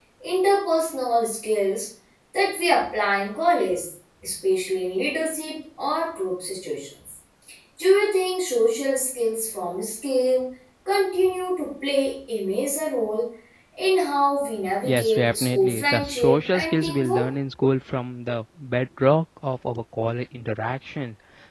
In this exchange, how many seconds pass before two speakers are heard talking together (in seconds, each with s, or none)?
14.8 s